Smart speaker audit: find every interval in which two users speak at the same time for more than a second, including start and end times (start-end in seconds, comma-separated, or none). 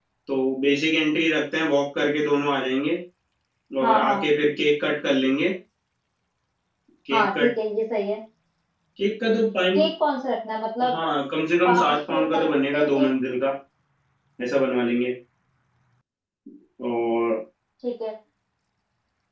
11.7-13.1